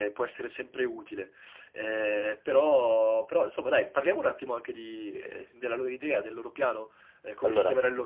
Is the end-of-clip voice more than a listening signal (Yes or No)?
No